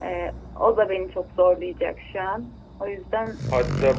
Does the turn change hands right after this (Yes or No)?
Yes